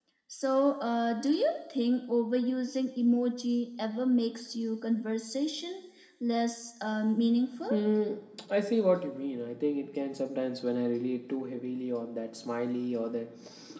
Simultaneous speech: No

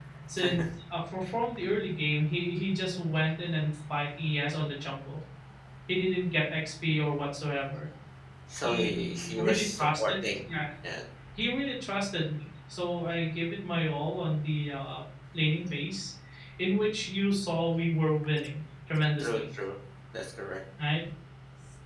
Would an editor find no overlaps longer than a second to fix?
No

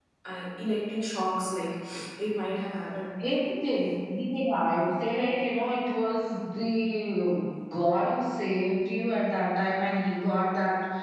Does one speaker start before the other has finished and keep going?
No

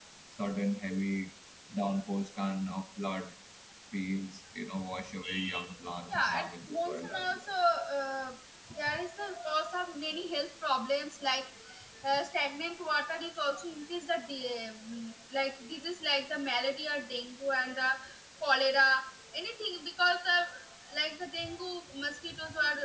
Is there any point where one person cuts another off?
Yes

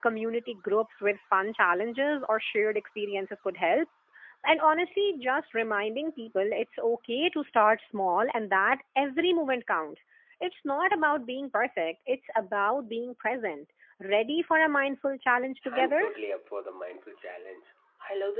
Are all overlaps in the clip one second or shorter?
Yes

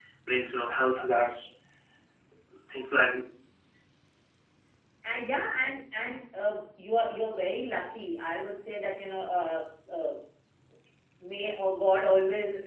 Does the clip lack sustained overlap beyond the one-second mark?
Yes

